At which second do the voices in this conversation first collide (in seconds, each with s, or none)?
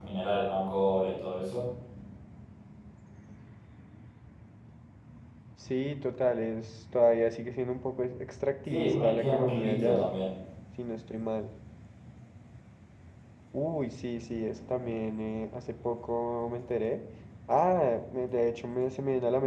8.7 s